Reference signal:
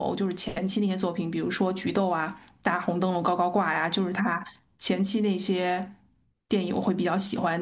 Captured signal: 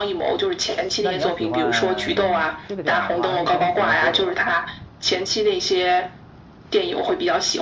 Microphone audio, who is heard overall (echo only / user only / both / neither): both